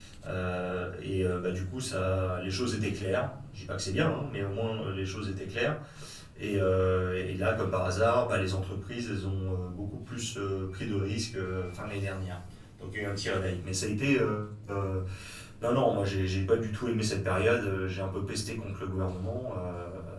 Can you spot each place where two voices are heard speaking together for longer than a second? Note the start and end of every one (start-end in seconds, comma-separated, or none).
none